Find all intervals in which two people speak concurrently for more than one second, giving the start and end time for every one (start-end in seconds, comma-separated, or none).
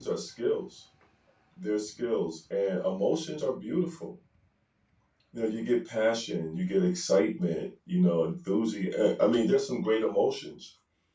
none